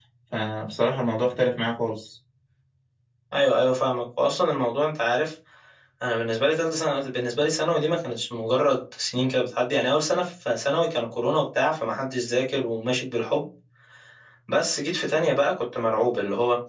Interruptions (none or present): none